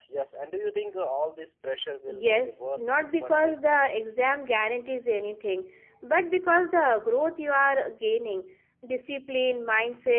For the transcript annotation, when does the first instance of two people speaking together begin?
2.1 s

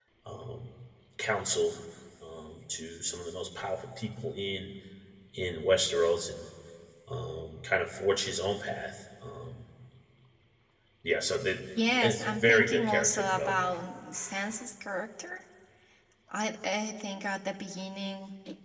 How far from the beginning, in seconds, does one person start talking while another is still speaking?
12.0 s

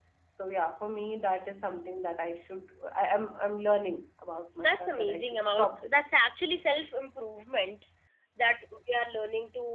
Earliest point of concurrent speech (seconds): 4.6 s

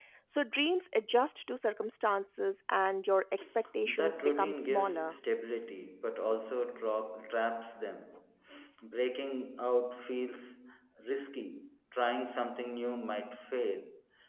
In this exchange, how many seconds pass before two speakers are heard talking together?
3.8 s

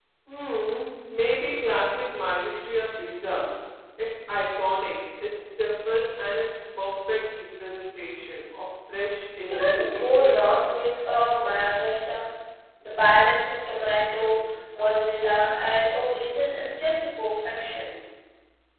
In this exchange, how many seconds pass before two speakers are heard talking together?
9.5 s

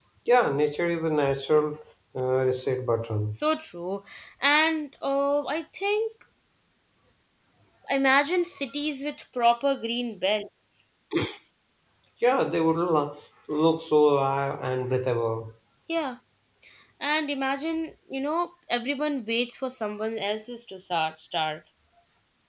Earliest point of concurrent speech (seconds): none

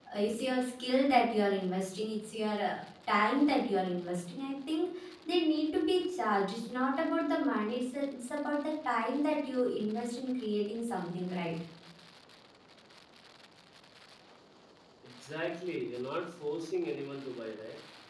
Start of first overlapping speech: none

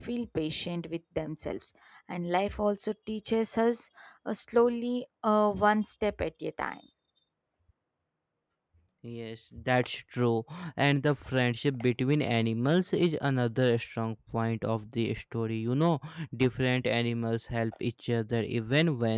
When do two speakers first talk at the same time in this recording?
none

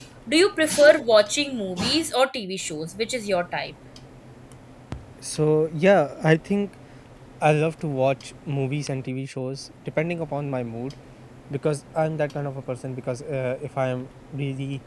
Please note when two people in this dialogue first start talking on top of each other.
none

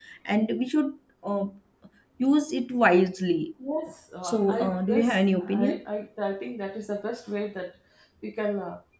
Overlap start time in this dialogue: 4.2 s

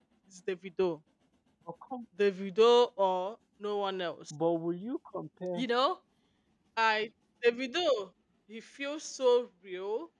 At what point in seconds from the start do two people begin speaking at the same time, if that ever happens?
none

